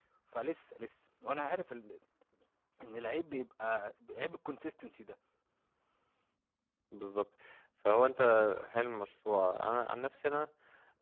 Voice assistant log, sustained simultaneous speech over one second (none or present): none